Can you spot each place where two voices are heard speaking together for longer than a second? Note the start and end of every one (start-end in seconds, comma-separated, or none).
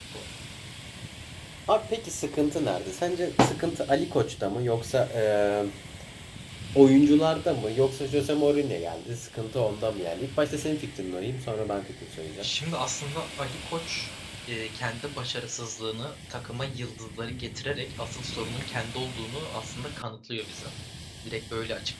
none